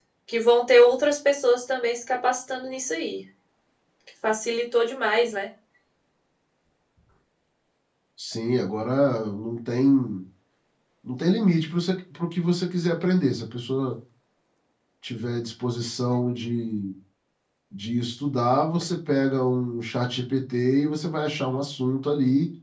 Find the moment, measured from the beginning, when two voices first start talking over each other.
none

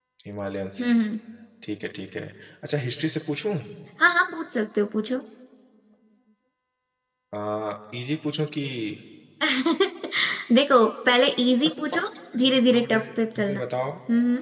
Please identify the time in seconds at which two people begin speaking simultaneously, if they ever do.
11.6 s

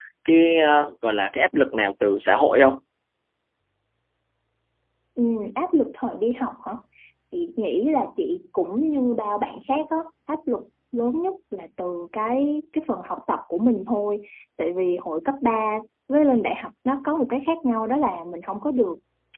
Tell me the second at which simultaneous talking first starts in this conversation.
none

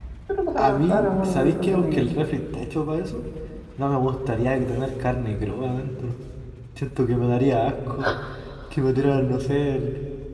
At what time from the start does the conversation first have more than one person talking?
0.6 s

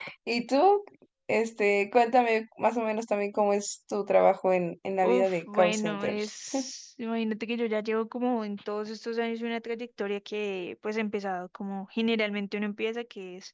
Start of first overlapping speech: 5.0 s

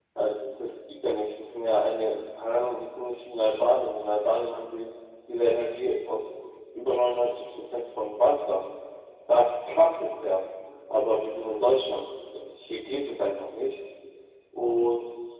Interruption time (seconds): none

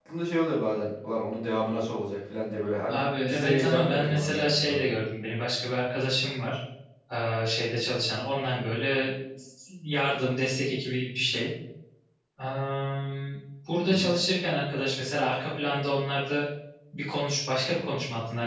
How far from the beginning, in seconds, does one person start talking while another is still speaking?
2.9 s

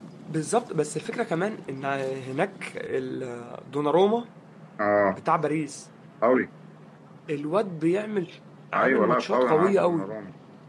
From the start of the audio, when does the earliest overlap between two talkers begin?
8.8 s

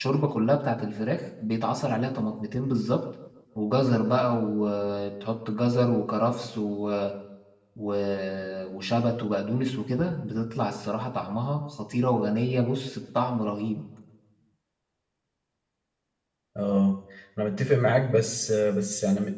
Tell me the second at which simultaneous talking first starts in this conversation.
none

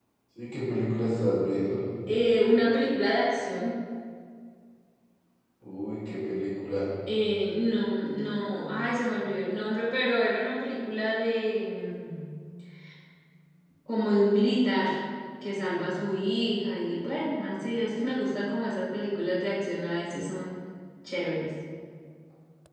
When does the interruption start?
none

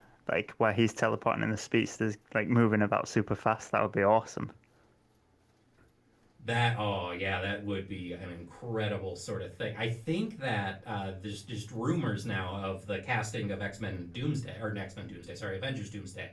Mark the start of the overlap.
none

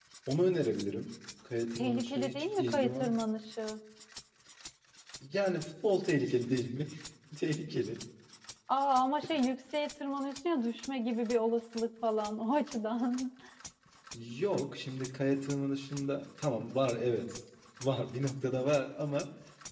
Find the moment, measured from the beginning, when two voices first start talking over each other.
1.8 s

